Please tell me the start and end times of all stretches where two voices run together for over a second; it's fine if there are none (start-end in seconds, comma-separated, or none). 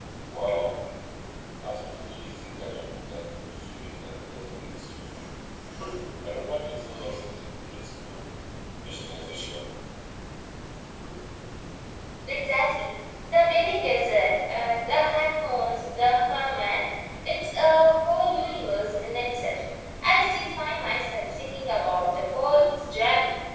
none